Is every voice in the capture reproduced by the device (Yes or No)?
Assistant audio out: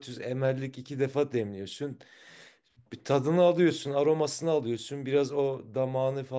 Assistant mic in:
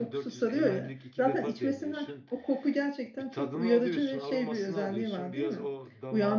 No